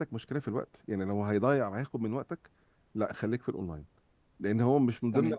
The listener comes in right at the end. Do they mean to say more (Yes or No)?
No